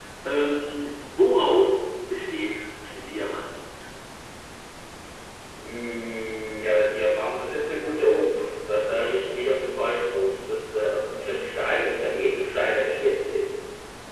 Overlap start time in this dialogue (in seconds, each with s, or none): none